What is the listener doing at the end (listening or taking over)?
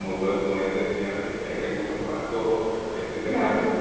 listening